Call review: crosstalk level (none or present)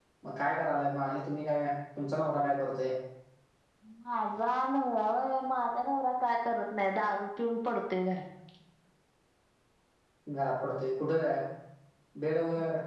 none